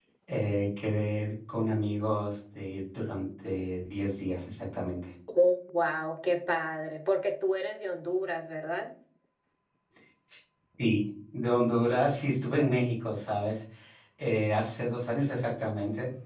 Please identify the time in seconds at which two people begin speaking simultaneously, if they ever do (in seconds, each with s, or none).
none